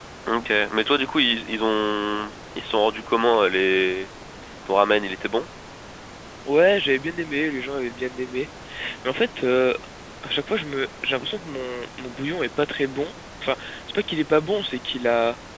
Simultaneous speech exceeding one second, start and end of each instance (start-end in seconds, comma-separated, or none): none